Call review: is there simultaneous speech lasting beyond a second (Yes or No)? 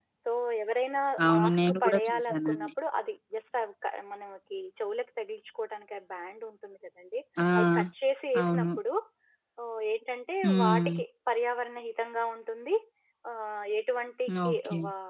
Yes